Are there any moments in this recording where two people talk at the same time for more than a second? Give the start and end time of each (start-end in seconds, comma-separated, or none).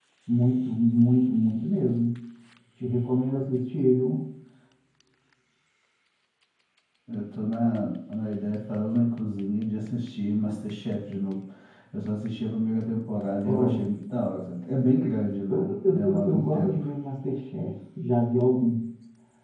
15.5-16.9